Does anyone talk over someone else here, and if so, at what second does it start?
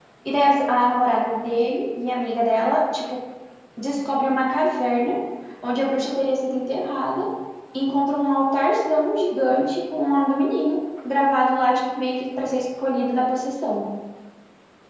none

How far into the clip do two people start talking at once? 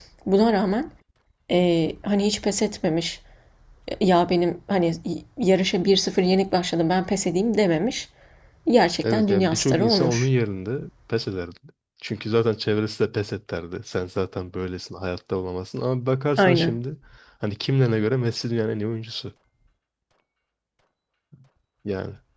9.0 s

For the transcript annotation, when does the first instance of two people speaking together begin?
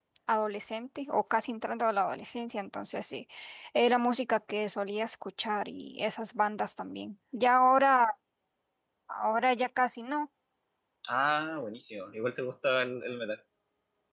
none

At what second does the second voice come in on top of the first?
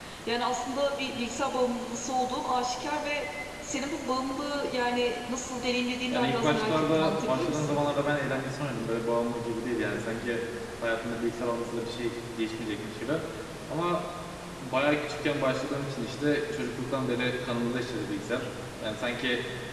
6.1 s

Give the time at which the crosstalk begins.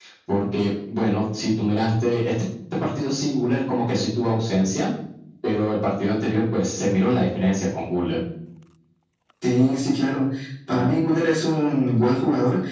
none

